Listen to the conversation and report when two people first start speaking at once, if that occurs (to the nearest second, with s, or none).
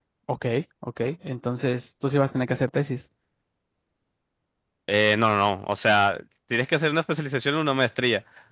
none